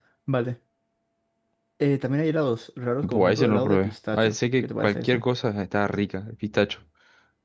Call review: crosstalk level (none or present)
present